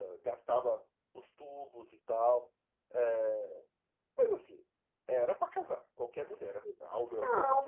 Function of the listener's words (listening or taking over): taking over